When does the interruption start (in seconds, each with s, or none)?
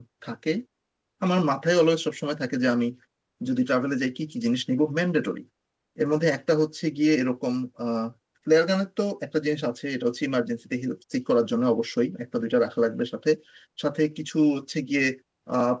none